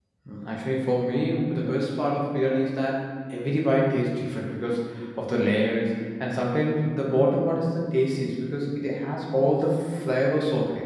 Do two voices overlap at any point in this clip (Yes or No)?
No